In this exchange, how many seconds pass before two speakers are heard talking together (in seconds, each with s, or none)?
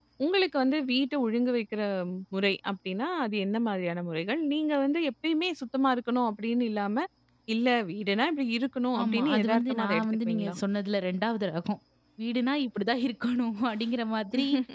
9.0 s